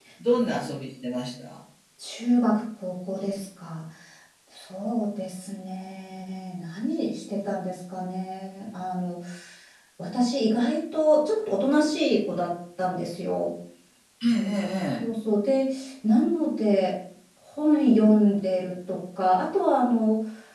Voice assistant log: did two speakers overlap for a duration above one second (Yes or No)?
No